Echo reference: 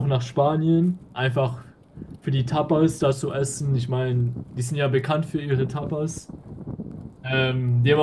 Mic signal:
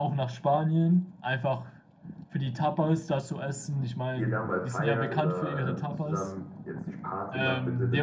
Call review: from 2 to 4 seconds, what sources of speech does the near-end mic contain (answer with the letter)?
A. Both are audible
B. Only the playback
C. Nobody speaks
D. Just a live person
B